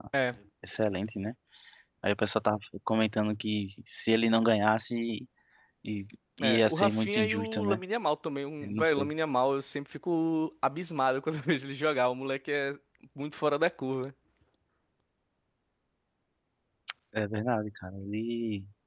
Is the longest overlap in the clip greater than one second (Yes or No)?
Yes